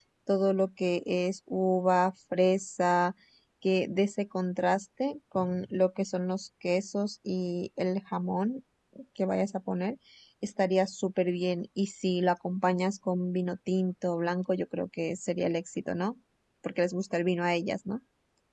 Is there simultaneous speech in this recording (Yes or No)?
No